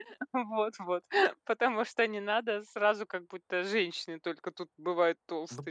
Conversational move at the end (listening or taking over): taking over